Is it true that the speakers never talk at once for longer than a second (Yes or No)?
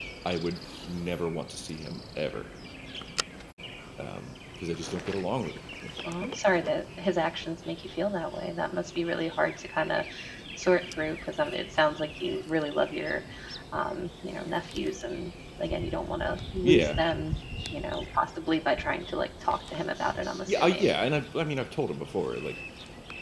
Yes